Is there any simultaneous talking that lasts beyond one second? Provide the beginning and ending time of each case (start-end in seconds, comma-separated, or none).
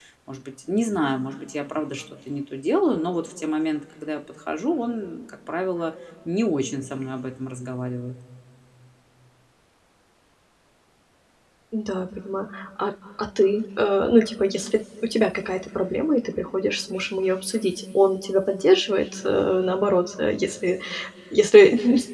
none